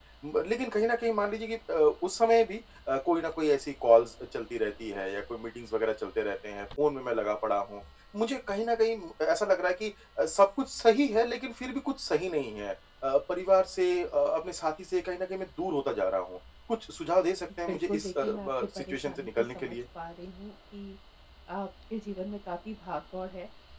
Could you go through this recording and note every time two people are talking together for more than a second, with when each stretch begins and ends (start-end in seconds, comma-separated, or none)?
17.7-19.8